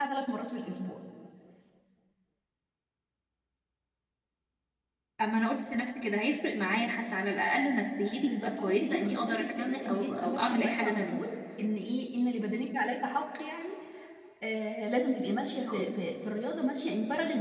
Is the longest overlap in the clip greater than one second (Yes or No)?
Yes